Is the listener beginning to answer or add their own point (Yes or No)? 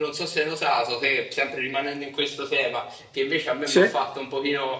No